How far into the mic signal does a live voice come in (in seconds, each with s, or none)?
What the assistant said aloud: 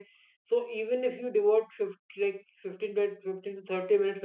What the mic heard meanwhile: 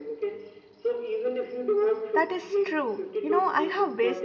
2.1 s